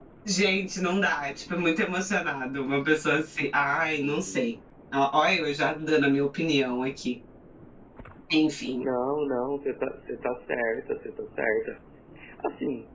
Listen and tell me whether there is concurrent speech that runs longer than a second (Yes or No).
No